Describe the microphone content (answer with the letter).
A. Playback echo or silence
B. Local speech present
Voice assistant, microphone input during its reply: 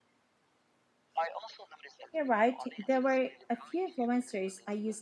B